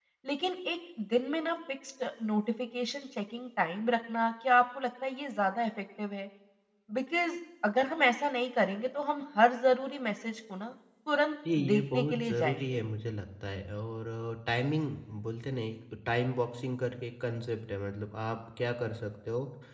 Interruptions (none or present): present